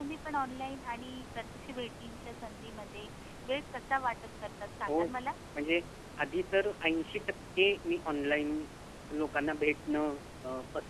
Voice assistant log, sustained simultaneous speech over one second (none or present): none